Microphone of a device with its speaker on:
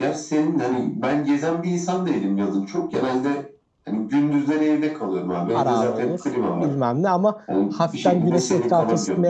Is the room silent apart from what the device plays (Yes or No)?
No